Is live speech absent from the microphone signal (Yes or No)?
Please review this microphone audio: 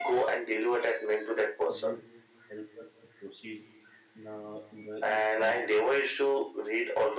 No